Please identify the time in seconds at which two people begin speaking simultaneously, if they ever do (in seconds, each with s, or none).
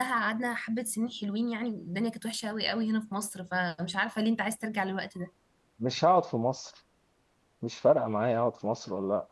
none